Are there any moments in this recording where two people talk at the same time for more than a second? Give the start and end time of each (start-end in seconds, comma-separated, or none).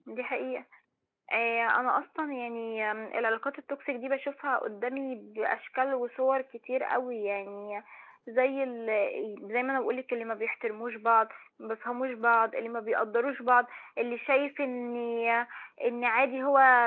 none